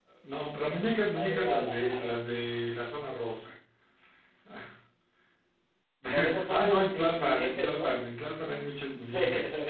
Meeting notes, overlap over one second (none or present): present